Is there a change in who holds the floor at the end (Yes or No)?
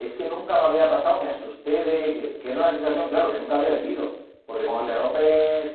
No